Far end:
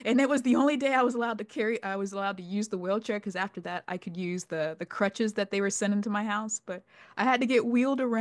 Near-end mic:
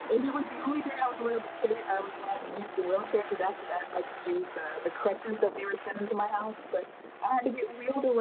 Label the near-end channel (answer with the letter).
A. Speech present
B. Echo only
B